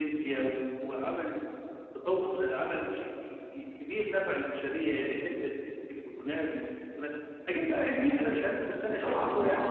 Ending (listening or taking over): taking over